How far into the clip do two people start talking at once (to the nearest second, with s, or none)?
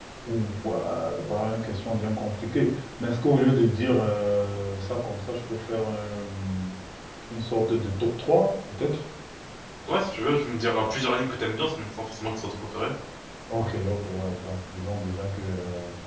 none